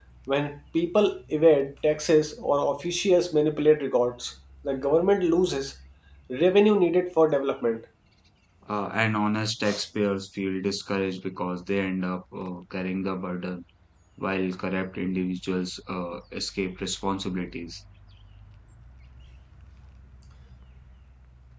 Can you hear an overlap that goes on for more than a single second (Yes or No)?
No